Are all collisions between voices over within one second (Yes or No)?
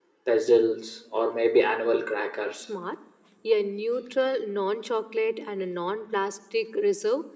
Yes